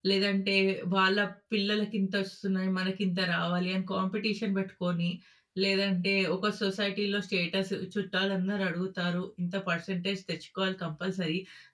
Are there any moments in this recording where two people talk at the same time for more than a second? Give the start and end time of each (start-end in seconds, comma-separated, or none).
none